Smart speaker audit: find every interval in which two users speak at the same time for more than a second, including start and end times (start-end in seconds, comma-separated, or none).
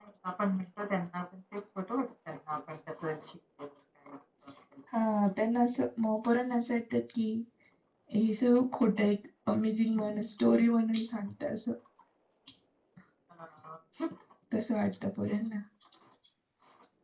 none